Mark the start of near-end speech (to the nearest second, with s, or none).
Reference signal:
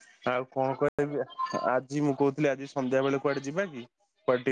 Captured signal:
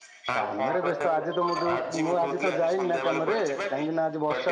0 s